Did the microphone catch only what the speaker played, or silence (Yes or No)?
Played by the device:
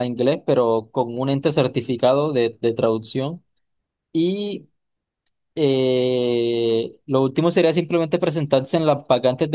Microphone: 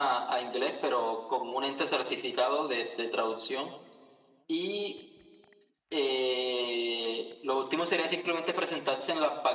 Yes